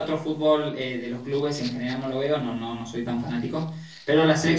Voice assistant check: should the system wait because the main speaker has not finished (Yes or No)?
Yes